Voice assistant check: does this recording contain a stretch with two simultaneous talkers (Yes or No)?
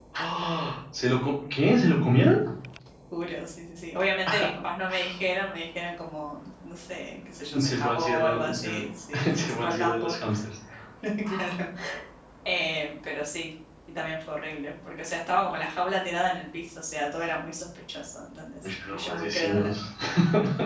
Yes